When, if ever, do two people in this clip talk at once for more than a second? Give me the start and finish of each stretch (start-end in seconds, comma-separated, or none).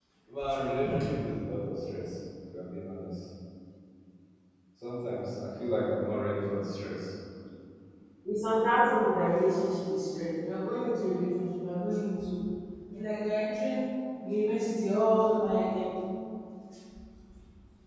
none